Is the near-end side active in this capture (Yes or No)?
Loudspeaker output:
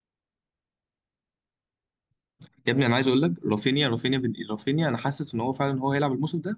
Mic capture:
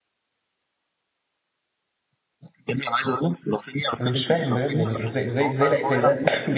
Yes